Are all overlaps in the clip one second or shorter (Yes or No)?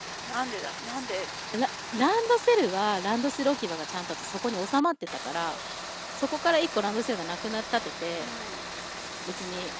Yes